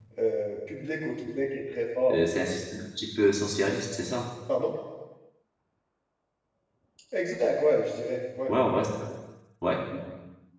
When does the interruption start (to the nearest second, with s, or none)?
none